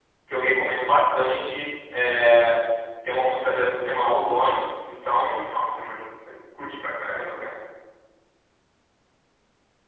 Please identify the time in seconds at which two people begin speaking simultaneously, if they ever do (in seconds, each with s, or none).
none